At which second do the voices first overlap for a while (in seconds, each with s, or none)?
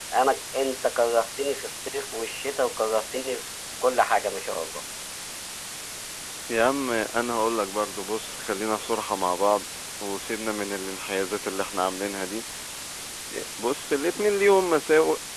none